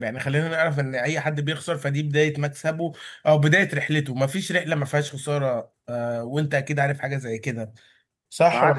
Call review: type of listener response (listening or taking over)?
taking over